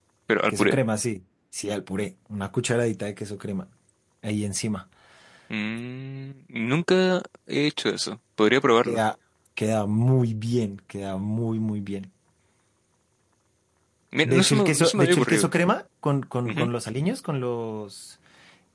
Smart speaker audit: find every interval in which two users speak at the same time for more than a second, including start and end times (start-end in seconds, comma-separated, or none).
14.2-15.5